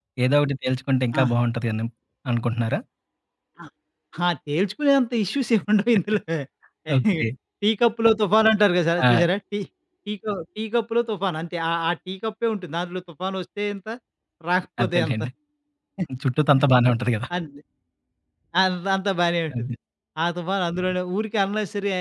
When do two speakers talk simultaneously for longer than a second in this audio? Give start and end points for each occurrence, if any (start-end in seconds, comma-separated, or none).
none